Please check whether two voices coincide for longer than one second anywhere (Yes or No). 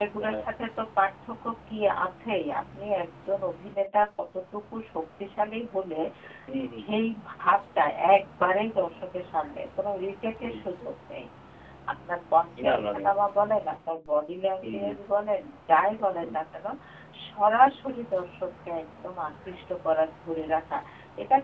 No